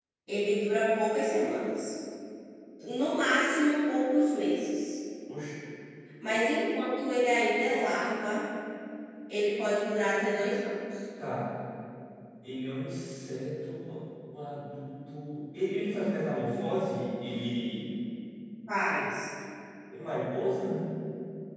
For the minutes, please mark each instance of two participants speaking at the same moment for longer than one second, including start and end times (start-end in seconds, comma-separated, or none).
none